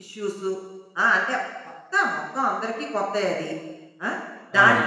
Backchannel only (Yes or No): Yes